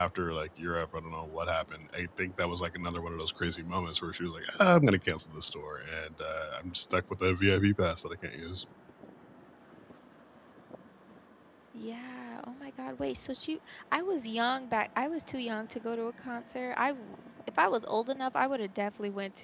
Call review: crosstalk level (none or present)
none